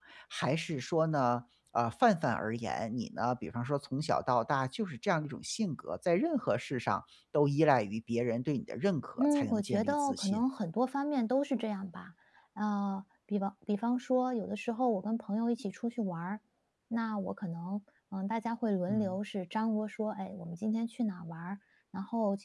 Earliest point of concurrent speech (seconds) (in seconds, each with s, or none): 9.2 s